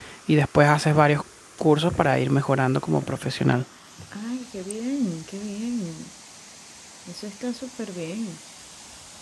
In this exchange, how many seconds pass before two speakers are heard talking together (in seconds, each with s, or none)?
none